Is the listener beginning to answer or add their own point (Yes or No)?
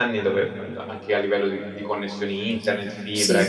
No